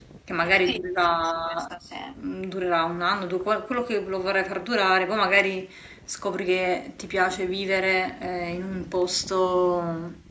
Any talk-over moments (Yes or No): No